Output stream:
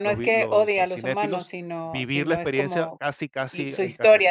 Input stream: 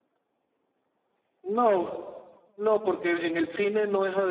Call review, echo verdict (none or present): none